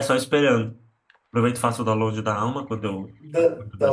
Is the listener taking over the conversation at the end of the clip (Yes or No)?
Yes